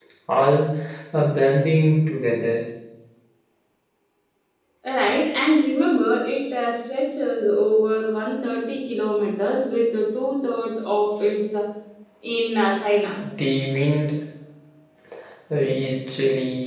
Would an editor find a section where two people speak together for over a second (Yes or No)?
No